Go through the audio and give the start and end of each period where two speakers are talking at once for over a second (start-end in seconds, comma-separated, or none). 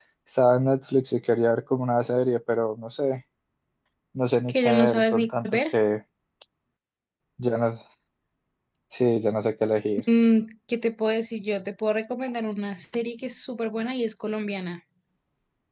4.5-5.7